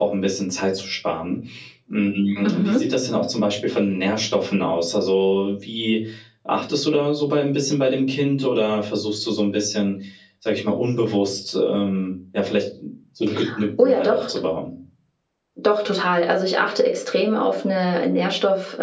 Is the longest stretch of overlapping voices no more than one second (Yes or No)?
Yes